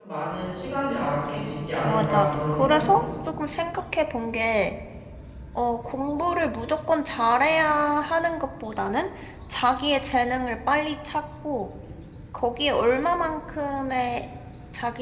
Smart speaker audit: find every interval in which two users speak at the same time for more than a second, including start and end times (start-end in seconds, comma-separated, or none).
1.8-3.0